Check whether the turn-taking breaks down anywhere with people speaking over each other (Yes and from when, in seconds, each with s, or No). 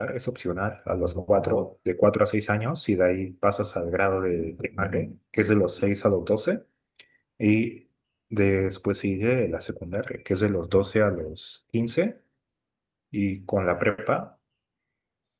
No